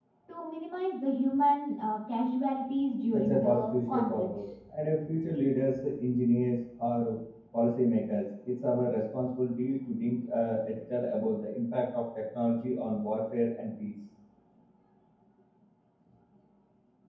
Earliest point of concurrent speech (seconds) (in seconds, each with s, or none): 3.1 s